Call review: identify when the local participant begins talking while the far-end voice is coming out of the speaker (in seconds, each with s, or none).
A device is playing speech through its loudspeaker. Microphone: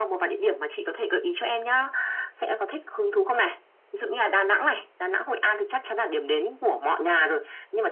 none